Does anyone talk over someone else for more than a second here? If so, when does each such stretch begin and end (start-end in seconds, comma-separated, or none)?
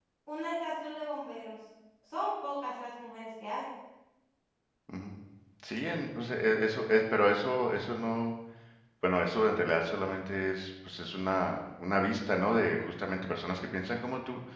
none